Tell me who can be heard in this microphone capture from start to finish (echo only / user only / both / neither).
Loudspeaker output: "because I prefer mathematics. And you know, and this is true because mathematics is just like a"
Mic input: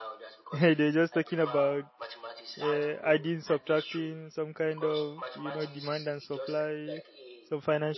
both